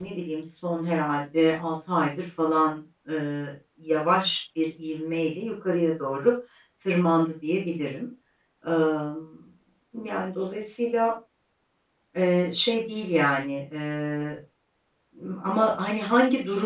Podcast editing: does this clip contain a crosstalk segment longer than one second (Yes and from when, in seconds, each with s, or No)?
No